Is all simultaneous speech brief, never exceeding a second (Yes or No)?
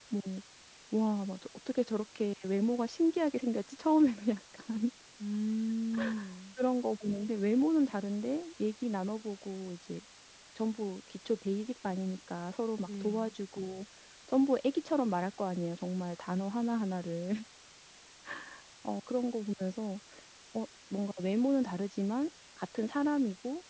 Yes